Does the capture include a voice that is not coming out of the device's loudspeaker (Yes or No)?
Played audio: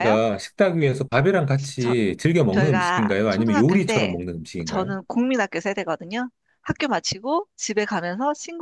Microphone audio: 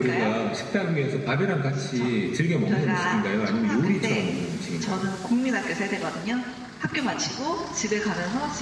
No